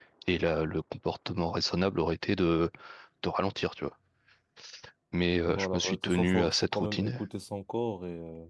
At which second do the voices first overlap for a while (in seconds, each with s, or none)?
5.4 s